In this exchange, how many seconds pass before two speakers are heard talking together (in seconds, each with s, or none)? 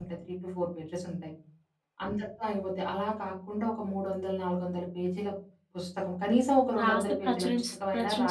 6.8 s